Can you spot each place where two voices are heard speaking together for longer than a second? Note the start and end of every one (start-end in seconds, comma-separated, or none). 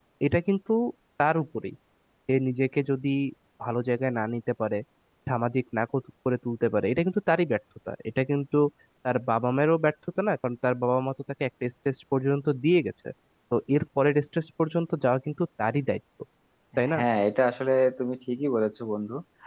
none